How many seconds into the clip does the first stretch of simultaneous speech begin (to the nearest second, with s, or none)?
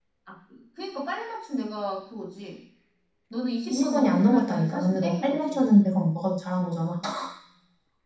4 s